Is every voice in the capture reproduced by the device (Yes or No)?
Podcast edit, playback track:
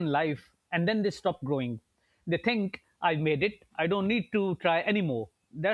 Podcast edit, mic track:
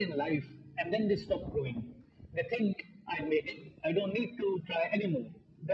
Yes